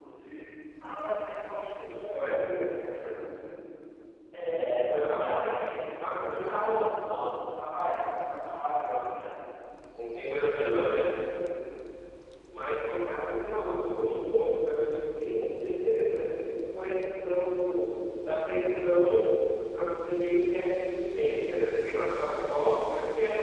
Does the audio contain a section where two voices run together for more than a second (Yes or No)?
Yes